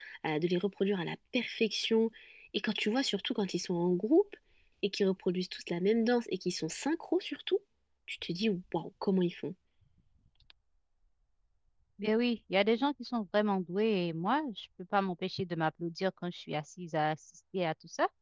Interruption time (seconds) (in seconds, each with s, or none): none